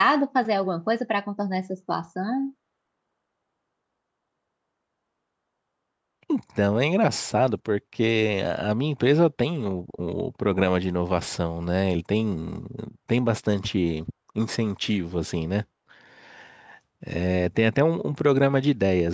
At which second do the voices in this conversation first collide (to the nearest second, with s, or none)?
none